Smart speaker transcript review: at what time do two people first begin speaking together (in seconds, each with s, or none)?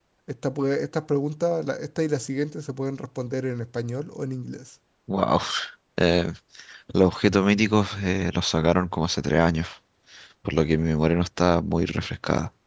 none